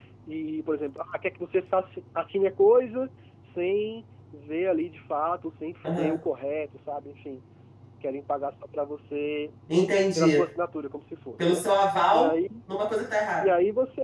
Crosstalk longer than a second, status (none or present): none